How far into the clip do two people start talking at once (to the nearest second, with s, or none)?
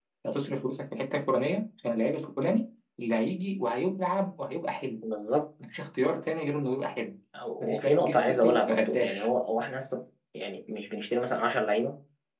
8 s